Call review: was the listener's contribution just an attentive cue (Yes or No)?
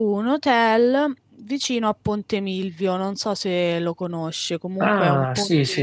No